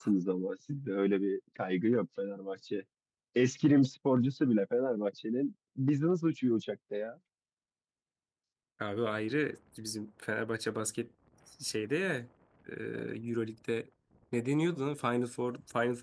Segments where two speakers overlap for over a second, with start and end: none

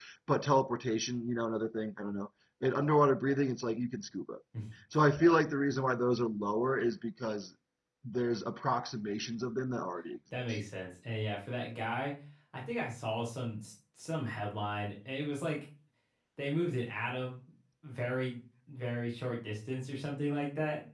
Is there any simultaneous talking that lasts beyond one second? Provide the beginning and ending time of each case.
none

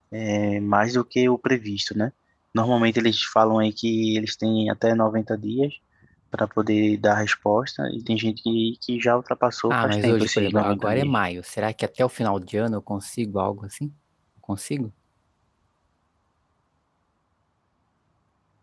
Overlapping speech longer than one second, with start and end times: 9.7-11.1

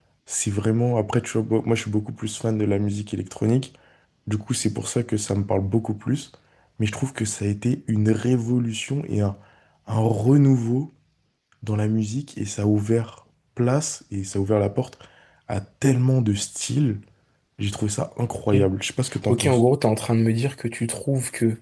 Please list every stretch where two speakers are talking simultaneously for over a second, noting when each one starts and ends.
none

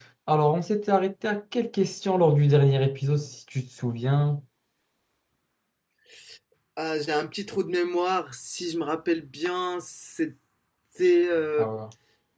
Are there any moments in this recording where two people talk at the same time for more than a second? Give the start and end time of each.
none

